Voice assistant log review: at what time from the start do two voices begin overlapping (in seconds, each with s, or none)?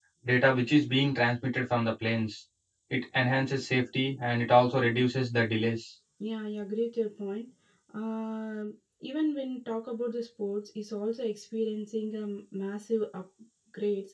none